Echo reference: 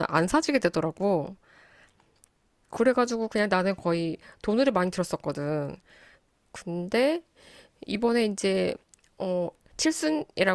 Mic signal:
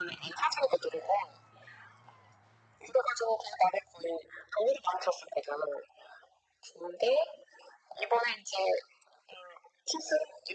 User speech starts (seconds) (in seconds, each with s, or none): none